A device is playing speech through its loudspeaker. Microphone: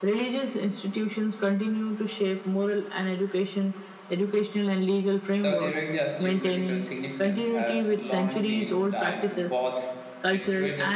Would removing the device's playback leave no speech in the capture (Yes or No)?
No